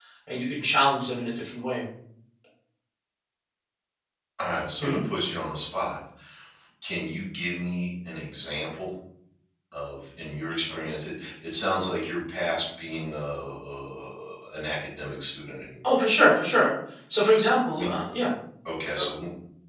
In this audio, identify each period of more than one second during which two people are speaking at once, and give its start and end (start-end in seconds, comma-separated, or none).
none